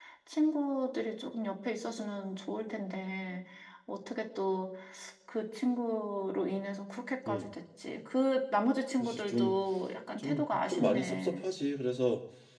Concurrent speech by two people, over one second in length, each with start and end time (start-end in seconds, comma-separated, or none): 10.2-11.4